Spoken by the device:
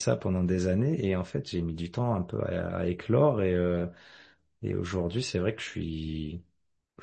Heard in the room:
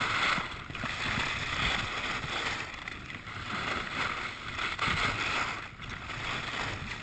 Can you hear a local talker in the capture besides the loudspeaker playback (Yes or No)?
No